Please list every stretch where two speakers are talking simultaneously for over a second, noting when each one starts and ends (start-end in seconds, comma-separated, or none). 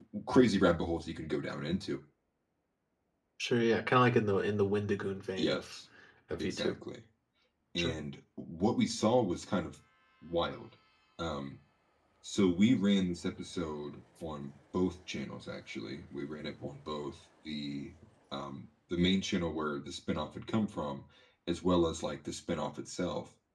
none